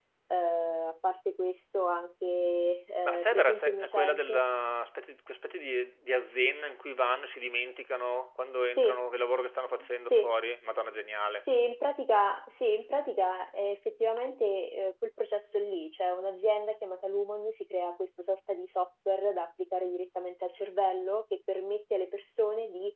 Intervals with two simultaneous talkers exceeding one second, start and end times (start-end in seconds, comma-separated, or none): 3.0-4.4